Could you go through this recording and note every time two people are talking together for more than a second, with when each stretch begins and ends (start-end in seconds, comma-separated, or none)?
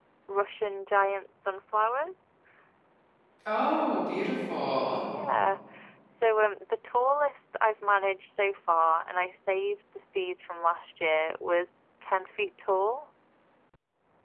none